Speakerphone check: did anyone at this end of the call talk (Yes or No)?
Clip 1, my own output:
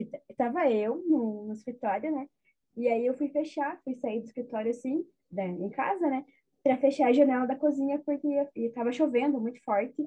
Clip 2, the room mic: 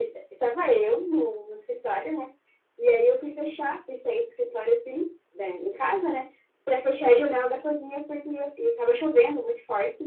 No